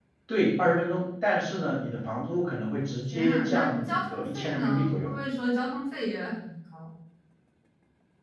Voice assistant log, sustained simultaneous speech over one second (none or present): present